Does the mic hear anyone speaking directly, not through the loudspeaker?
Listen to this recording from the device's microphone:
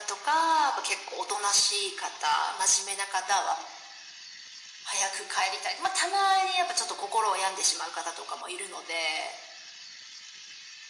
No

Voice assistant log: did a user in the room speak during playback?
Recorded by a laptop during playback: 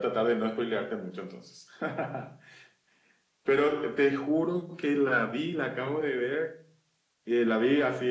No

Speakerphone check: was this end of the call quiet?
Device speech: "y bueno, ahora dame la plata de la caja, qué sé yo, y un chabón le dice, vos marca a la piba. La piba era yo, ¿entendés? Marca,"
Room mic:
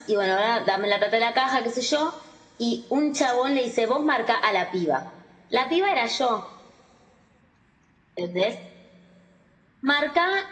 Yes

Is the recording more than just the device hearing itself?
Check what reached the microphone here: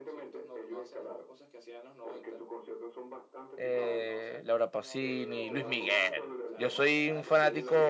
Yes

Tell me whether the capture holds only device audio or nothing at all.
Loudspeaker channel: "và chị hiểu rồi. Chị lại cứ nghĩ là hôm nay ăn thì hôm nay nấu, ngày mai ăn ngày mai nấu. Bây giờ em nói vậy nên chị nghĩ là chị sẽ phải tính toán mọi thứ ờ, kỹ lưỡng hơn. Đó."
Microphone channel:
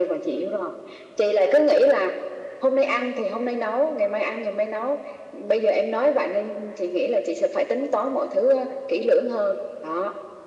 Yes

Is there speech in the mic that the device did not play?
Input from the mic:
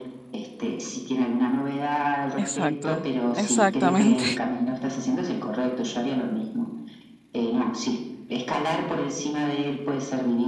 Yes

